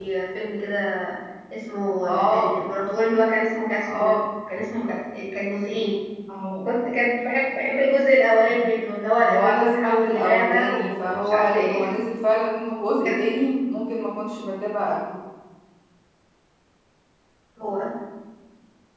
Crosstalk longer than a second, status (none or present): present